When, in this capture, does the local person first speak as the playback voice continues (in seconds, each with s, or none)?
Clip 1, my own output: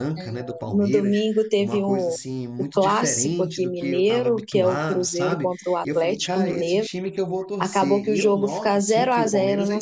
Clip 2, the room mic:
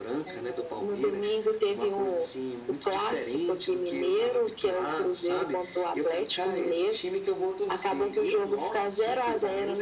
none